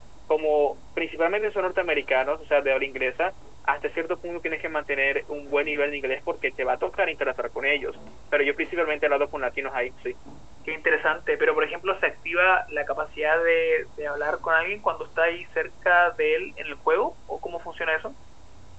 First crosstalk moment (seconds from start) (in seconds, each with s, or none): none